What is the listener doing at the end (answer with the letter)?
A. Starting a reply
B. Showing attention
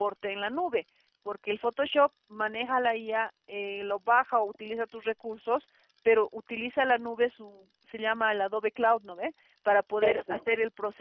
B